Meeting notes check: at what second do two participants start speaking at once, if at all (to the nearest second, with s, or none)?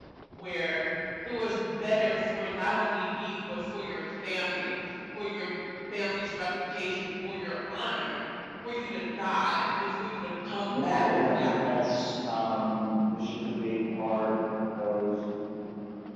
11 s